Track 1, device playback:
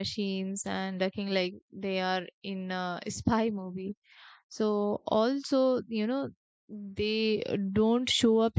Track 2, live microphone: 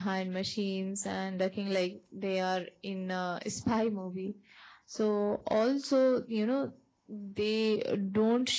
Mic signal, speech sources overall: echo only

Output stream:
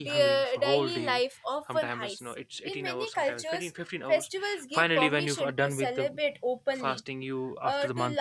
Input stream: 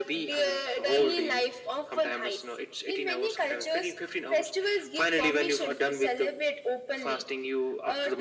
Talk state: echo only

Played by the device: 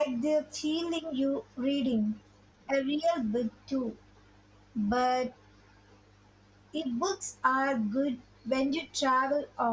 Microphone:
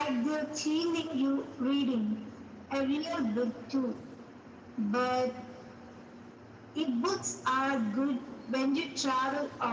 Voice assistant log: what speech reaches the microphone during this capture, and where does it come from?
echo only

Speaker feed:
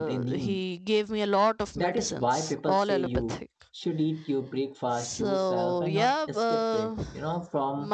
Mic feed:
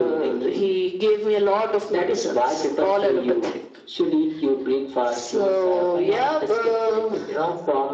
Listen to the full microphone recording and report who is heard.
echo only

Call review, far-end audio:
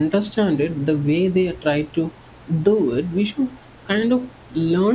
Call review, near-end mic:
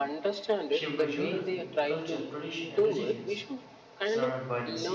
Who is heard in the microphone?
both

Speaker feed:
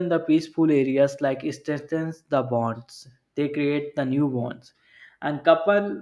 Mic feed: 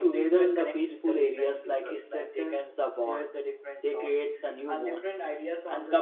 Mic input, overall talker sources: both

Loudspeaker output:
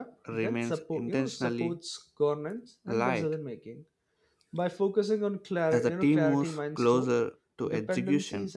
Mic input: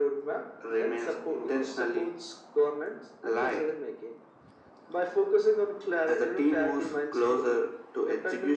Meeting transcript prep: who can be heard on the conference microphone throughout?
echo only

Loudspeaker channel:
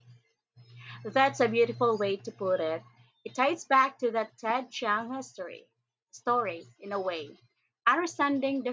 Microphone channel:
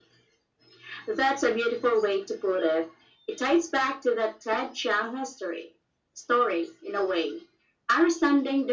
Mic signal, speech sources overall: echo only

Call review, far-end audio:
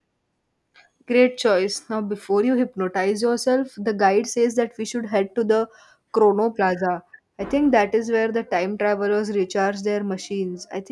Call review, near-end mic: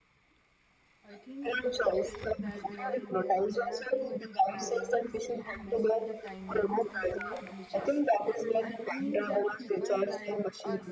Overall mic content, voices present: both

